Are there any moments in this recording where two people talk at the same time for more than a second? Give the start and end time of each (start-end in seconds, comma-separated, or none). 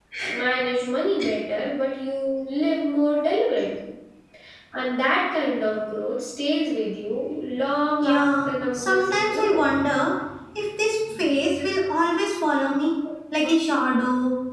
8.0-9.6